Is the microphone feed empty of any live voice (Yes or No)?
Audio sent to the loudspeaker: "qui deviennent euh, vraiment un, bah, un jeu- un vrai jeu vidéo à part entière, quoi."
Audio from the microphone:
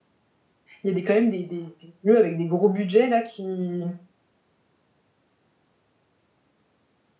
No